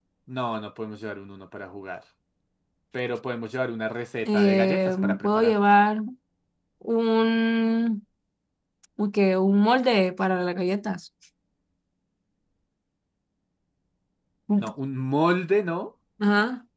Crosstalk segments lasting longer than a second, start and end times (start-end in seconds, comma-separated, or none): 4.2-5.5